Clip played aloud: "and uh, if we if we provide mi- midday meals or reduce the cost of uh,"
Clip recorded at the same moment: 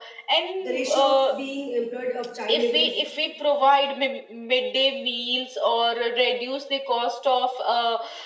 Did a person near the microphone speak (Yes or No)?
Yes